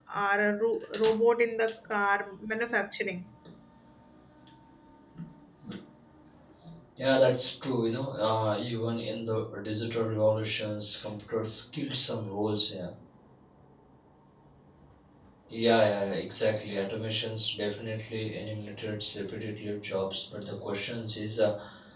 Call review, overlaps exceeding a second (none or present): none